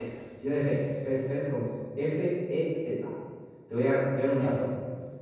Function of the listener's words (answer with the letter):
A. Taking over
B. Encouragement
B